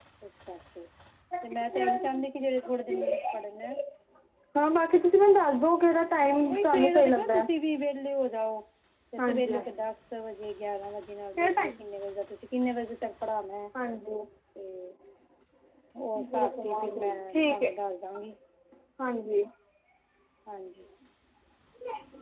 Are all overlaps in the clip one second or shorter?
No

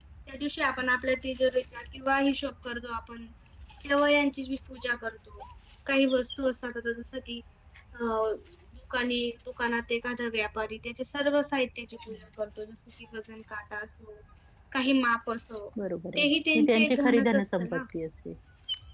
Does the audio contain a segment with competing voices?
Yes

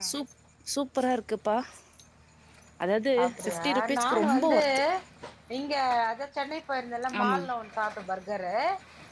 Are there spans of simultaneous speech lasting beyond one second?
Yes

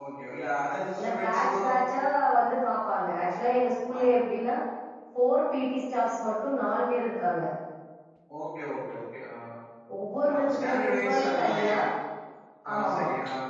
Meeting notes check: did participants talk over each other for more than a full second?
Yes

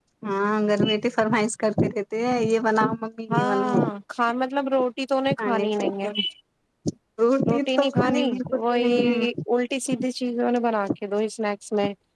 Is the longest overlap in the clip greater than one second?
Yes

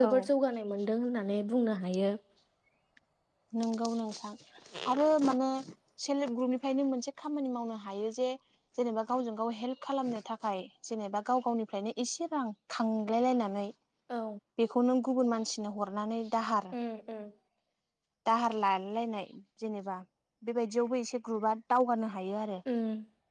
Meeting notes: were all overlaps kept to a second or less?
Yes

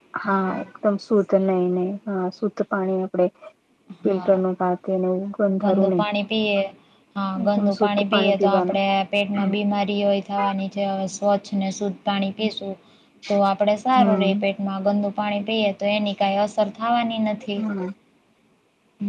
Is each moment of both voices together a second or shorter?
No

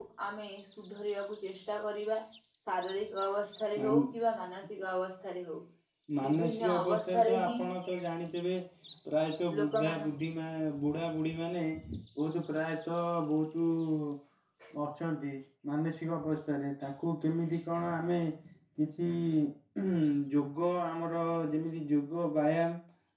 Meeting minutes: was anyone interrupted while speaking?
Yes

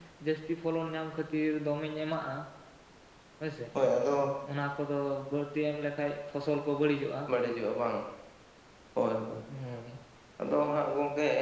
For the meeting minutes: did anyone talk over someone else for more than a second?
No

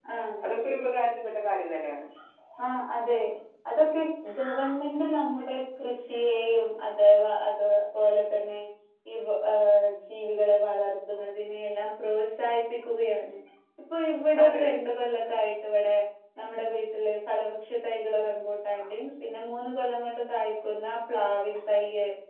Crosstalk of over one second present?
No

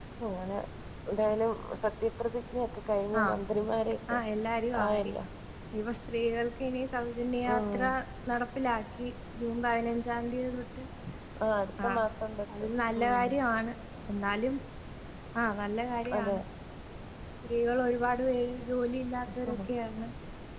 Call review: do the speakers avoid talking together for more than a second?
Yes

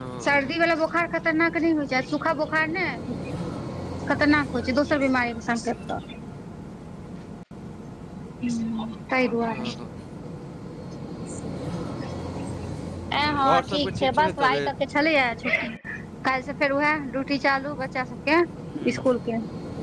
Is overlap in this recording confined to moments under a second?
No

